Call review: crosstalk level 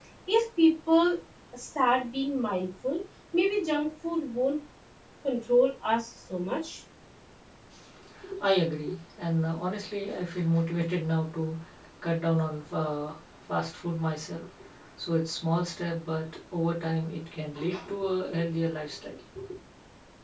none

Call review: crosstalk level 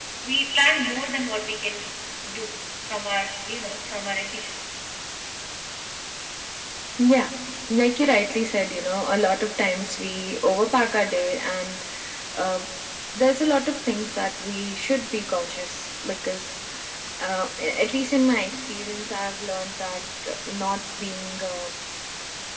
none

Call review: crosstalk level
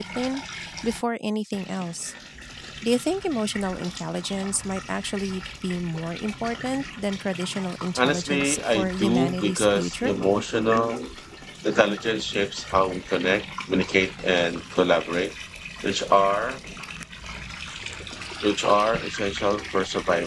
present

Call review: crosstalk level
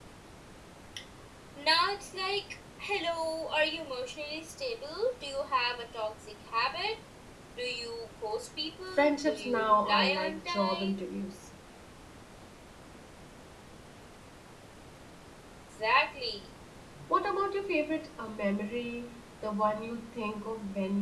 present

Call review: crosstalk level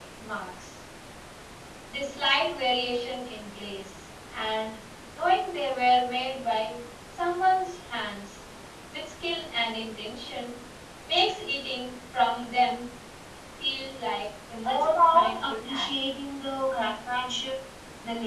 present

